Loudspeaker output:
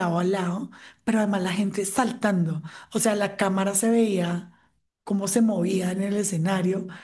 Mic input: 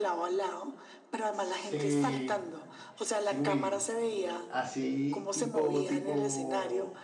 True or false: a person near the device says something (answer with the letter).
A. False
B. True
B